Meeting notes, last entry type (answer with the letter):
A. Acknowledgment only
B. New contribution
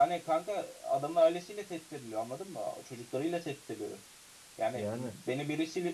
A